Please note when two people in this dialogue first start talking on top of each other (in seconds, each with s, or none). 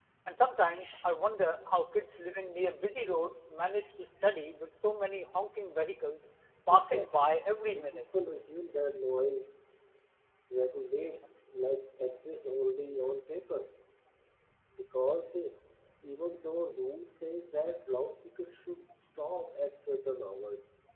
6.7 s